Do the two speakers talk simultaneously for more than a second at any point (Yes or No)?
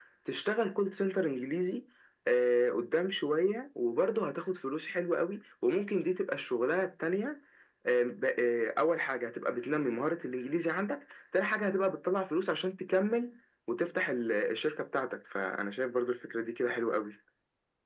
No